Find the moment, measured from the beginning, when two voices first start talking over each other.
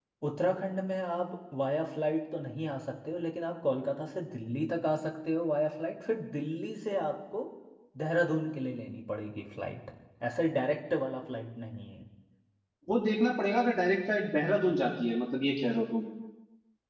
none

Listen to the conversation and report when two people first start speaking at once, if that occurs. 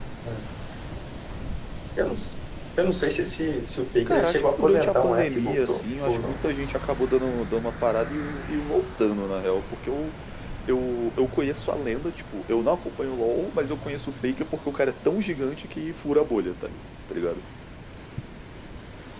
4.1 s

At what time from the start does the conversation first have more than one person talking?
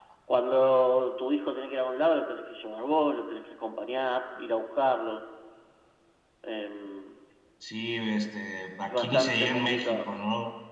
8.8 s

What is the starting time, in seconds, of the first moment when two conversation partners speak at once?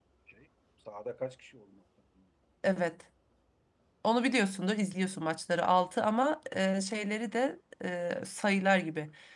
none

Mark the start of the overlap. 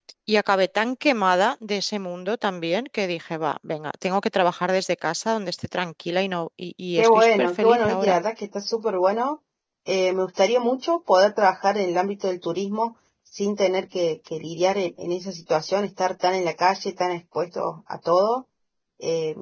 7.0 s

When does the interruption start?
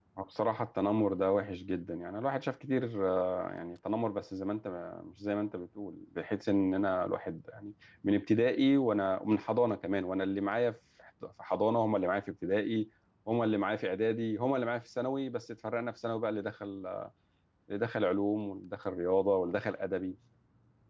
none

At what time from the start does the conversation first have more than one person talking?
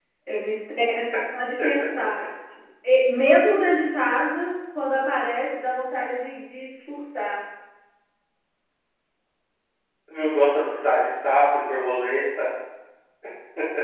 none

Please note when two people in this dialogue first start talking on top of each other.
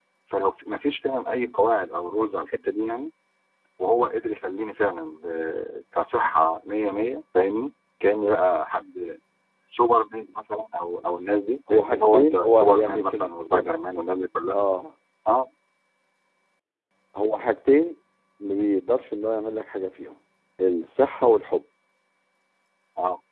11.7 s

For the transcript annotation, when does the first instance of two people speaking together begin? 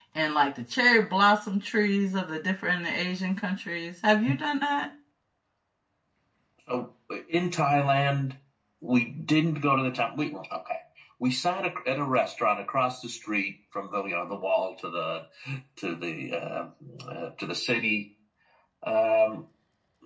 none

